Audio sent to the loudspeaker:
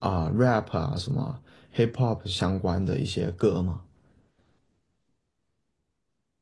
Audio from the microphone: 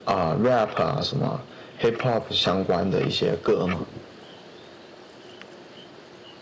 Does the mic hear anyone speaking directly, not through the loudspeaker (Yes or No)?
No